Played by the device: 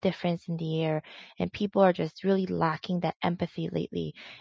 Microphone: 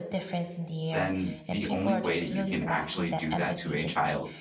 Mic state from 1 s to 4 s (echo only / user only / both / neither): both